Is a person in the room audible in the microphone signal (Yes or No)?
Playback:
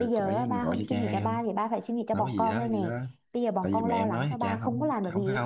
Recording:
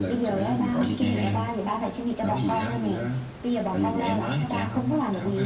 No